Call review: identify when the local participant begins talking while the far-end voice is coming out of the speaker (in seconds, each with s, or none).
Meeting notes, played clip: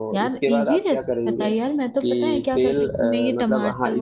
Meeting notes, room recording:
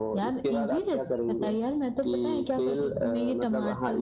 none